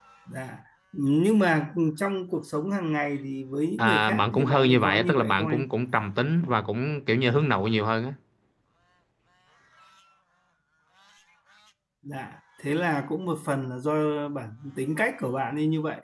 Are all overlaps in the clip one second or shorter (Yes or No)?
No